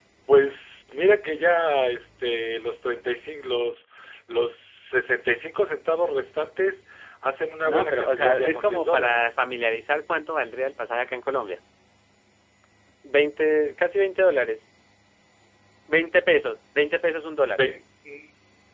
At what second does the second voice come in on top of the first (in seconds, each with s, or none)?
7.6 s